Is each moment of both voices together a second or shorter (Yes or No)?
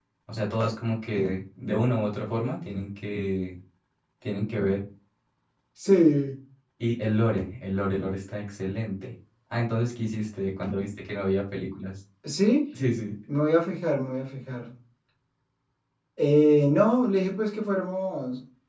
Yes